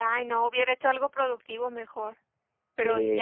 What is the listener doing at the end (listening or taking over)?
taking over